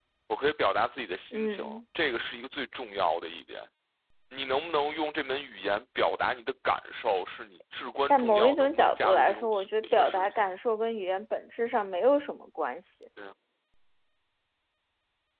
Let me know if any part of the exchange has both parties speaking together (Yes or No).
Yes